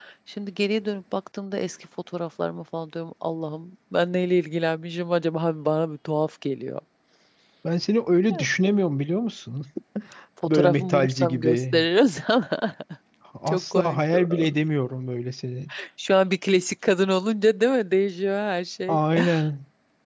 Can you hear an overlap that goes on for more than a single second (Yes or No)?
Yes